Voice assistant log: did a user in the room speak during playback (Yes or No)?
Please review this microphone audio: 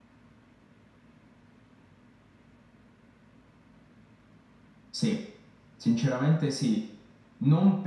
Yes